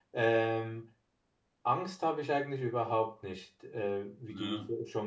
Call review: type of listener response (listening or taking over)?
listening